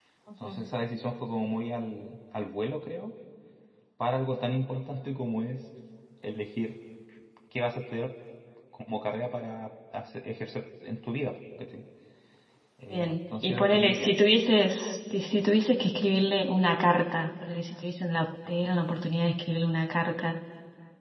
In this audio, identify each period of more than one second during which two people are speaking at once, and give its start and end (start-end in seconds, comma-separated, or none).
12.9-14.1